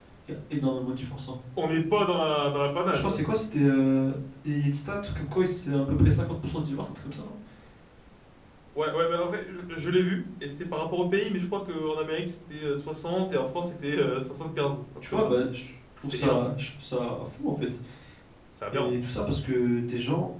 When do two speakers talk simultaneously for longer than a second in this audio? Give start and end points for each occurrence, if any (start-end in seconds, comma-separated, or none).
none